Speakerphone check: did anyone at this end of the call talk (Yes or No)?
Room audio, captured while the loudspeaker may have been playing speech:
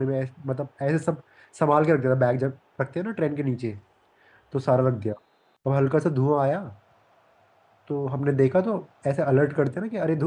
Yes